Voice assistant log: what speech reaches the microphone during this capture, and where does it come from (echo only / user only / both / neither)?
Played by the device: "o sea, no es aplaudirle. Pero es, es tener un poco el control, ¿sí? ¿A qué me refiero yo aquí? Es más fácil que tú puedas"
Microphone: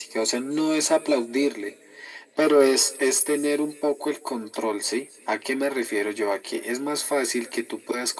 echo only